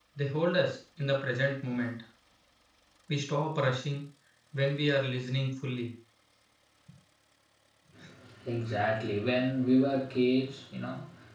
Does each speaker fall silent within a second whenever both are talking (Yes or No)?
Yes